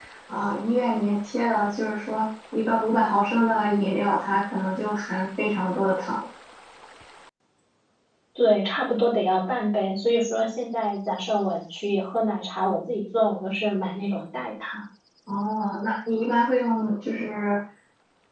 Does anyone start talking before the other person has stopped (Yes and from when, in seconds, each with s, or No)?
No